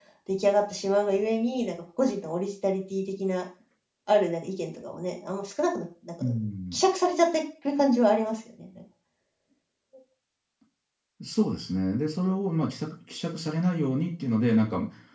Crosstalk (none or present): none